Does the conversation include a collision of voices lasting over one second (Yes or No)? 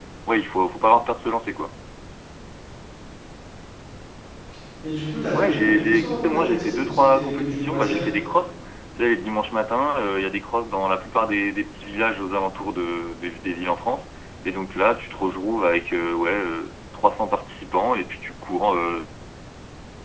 Yes